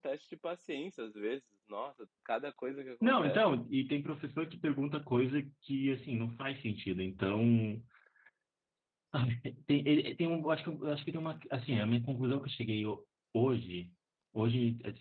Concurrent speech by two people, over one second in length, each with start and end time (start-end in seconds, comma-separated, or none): none